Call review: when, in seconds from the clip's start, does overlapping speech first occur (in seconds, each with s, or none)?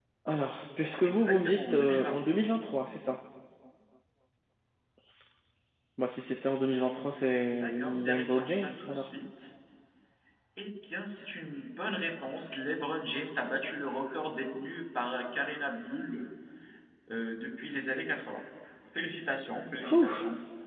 1.0 s